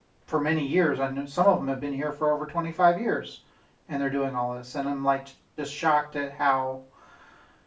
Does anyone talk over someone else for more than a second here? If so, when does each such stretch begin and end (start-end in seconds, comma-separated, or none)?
none